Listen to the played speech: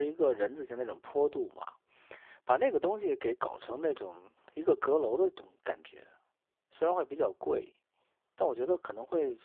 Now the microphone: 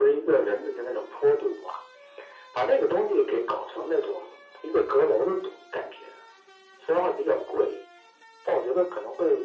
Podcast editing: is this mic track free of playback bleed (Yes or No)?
No